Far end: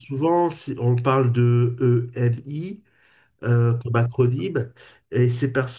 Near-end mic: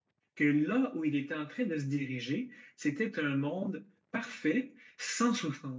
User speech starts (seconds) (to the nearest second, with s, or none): 0 s